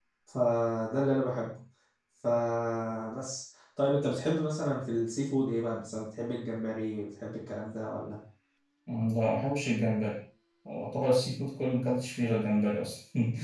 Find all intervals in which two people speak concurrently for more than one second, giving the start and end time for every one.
none

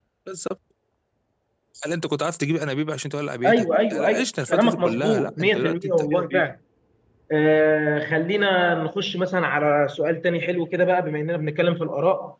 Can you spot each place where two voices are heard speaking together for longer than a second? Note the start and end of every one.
3.5-6.4

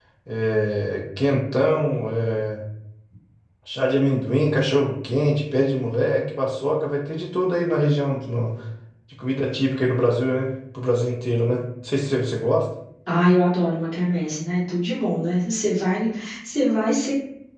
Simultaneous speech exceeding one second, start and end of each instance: none

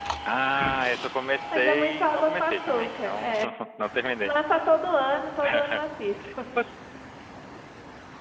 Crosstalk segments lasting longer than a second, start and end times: 1.5-3.3

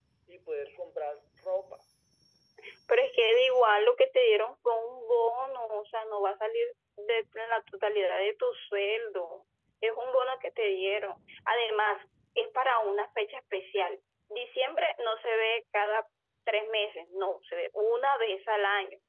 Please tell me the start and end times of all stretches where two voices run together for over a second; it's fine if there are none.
none

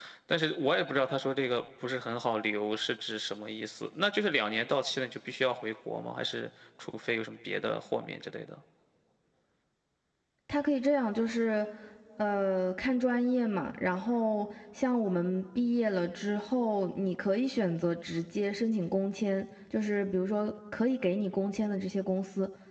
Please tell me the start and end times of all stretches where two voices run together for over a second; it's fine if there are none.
none

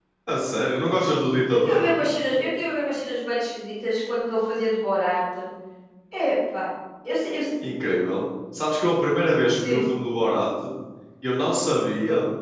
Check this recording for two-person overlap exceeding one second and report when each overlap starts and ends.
none

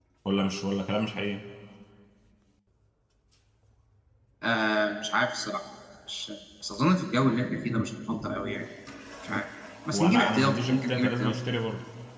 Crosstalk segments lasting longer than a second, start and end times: 9.9-11.3

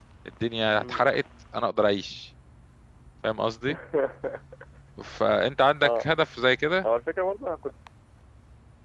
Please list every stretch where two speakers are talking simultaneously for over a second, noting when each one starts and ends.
none

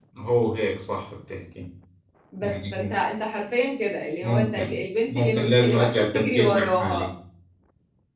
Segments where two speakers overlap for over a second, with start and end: 5.1-7.1

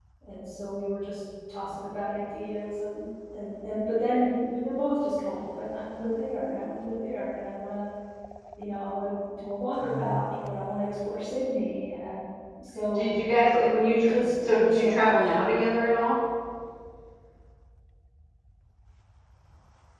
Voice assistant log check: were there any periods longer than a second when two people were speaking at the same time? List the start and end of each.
13.7-15.3

